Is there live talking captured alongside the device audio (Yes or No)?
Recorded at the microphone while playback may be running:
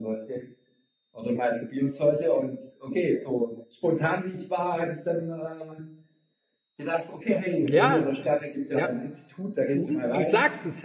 Yes